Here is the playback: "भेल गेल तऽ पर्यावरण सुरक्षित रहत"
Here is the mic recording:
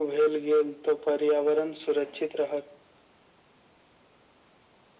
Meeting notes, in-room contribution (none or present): none